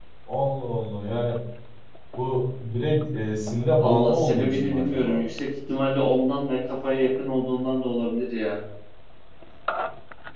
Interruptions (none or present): present